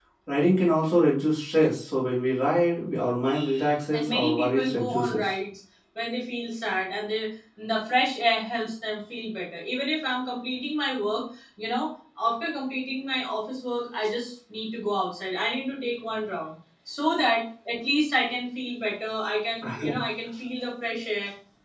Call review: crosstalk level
present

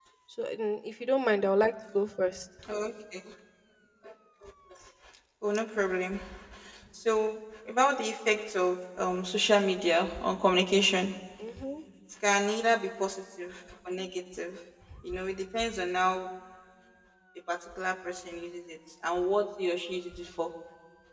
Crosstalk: none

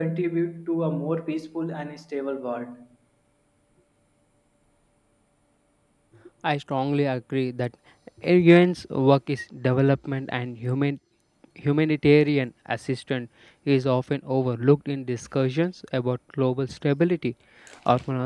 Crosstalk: none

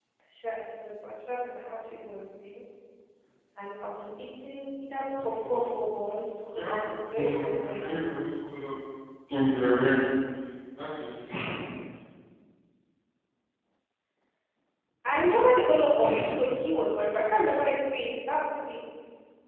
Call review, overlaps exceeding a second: present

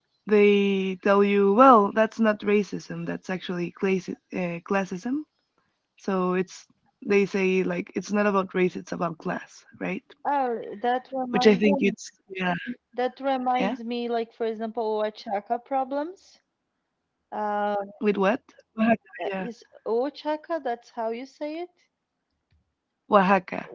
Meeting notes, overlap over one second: none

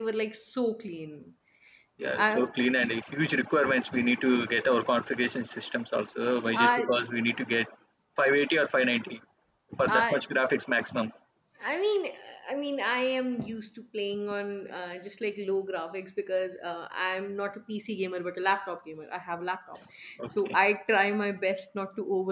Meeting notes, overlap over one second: none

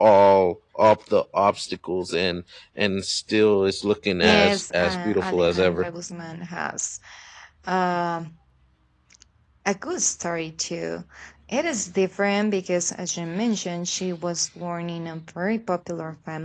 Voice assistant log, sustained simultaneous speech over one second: present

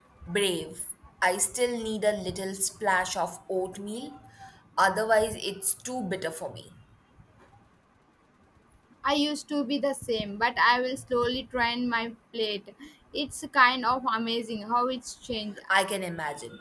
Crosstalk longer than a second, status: none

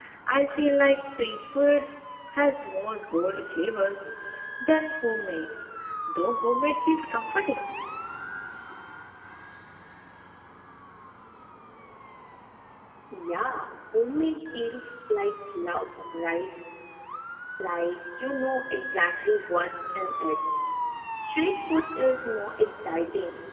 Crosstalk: none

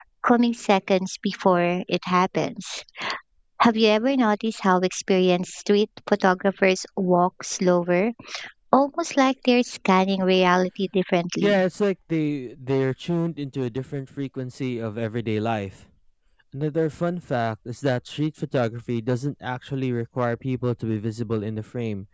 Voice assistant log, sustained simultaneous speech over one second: none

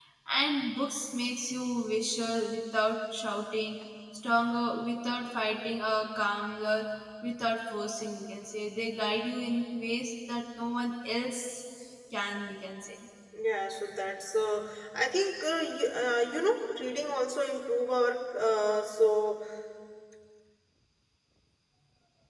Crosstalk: none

